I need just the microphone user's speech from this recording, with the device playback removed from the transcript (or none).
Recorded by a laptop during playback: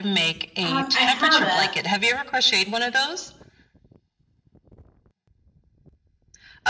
Um, I haven't.